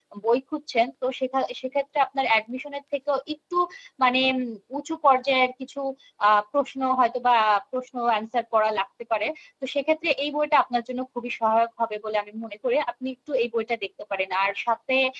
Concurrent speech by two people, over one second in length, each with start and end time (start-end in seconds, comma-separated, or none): none